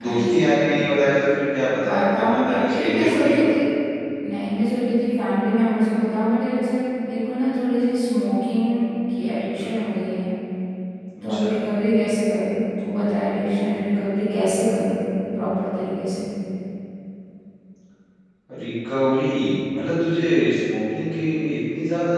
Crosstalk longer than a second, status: present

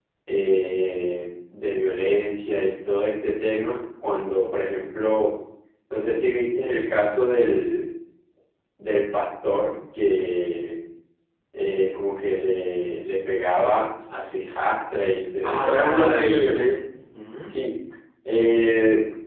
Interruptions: present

